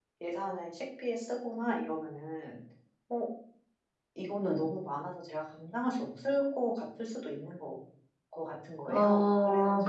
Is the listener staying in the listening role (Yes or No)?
No